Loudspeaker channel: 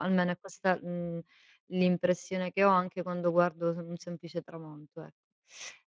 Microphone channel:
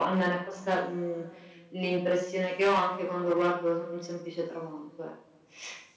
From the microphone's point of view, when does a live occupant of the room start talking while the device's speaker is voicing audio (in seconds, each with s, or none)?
none